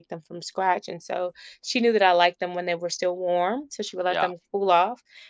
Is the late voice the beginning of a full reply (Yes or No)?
No